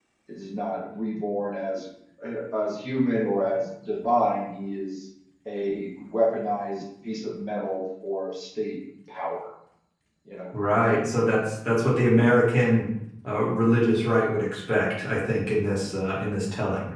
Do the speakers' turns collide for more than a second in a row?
No

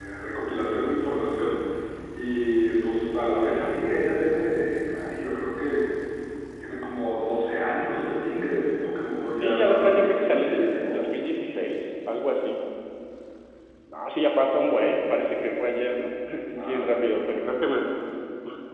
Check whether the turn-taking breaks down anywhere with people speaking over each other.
Yes, from 9.4 s

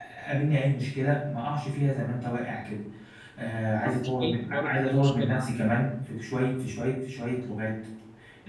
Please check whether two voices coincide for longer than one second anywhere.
Yes, from 3.8 s

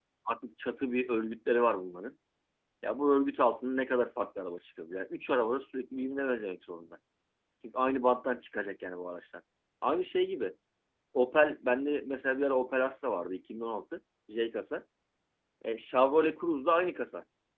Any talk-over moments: No

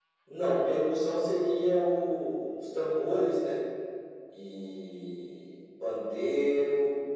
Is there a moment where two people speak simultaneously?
No

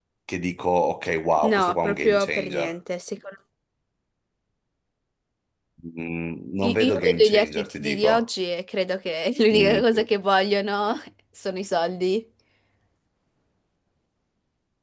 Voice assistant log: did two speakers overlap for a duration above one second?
Yes, from 1.4 s

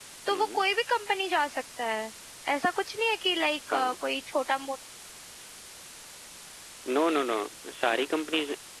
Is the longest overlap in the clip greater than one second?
No

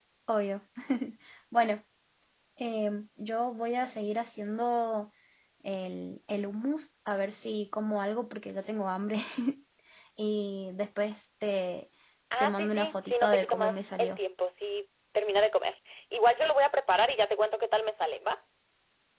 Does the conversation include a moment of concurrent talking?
Yes, from 12.4 s

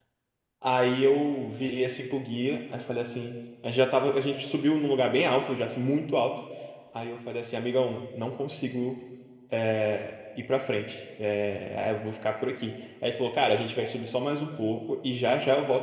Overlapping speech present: No

